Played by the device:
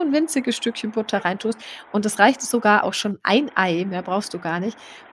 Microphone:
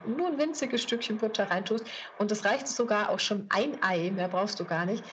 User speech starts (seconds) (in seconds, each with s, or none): none